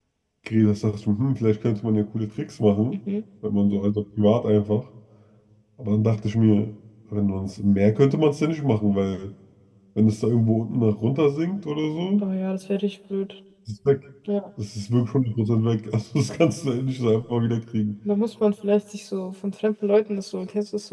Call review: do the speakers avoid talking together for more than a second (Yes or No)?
Yes